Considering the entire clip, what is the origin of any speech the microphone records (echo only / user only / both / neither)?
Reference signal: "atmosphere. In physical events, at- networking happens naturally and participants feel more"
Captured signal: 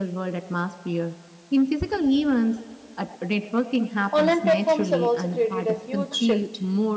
both